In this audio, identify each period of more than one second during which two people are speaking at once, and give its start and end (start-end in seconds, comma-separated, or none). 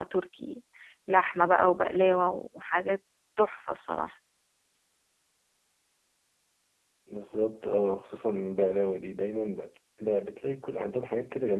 none